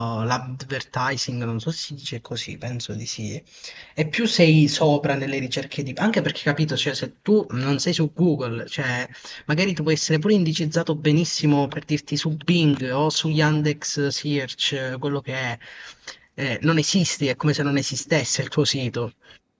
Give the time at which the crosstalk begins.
none

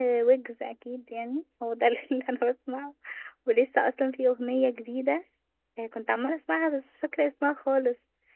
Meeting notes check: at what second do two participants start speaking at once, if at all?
none

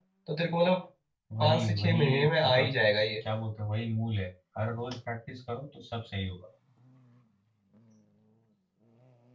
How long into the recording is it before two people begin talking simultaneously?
1.4 s

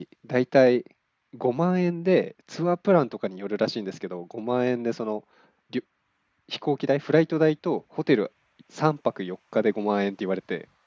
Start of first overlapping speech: none

